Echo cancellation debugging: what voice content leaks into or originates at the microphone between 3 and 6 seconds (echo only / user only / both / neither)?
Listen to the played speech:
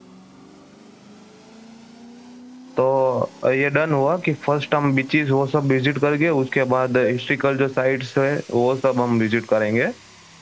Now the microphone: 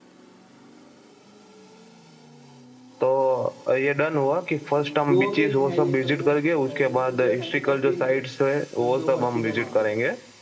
both